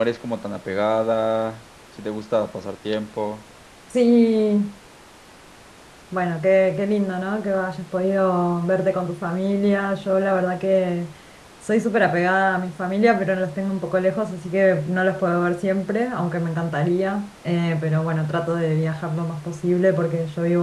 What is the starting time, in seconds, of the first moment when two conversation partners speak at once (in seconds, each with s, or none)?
none